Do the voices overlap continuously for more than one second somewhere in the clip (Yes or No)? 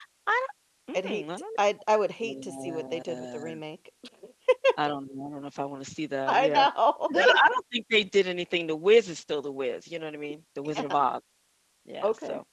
Yes